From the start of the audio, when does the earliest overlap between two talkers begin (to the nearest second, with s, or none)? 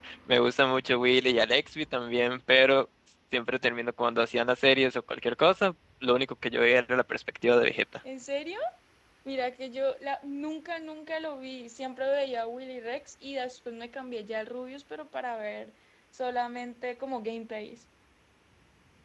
none